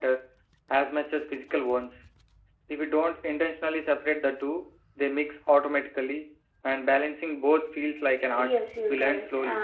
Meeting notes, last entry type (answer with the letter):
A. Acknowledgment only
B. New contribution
B